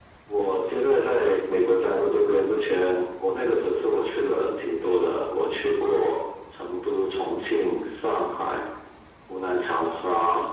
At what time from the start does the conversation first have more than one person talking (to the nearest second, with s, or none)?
none